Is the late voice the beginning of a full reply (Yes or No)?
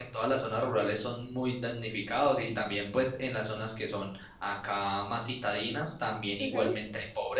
No